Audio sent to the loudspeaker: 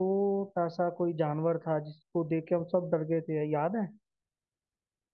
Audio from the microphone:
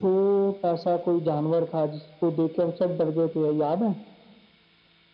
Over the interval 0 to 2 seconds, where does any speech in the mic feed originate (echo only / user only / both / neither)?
echo only